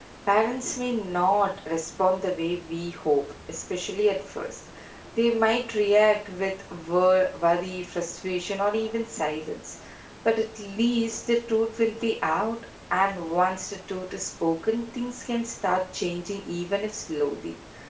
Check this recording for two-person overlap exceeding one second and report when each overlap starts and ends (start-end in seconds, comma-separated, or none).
none